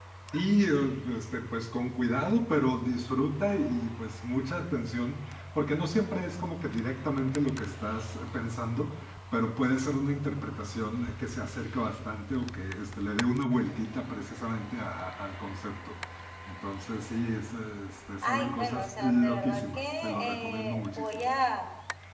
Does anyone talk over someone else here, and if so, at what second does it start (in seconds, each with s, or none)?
18.2 s